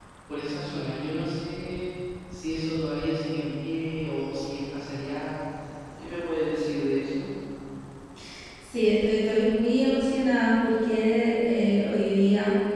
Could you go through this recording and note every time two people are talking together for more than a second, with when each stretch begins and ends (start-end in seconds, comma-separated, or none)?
none